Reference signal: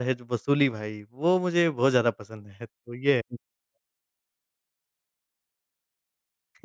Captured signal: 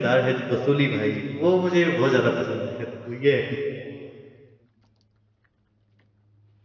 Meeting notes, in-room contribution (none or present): none